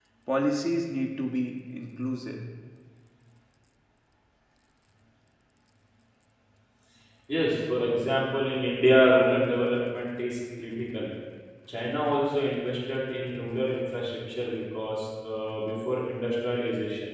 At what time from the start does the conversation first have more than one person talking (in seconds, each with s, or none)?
none